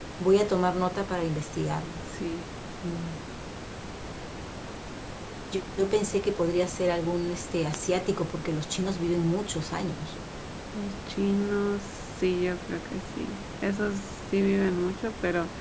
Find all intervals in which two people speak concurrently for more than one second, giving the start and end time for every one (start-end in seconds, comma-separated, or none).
none